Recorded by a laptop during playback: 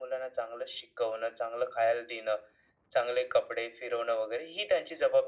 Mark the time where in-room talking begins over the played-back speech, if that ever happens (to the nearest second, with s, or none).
none